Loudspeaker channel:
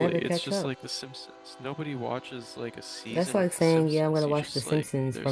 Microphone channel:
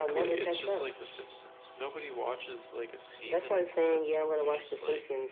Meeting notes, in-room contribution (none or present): none